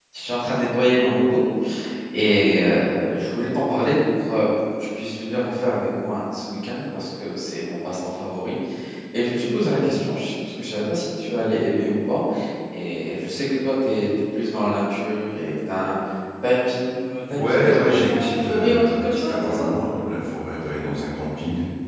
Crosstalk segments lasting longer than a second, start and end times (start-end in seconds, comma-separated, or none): 17.4-19.7